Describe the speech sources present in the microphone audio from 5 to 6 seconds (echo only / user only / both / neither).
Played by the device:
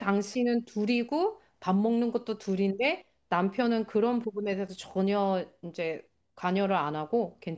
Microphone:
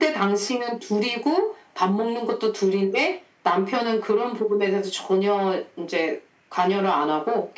echo only